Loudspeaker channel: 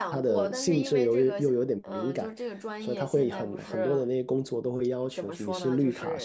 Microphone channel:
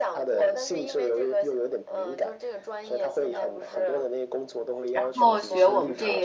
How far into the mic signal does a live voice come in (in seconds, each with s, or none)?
4.9 s